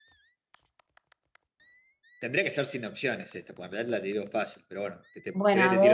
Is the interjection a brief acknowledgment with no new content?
No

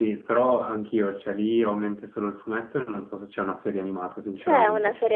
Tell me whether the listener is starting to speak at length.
Yes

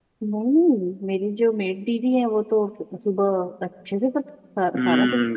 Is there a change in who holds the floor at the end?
Yes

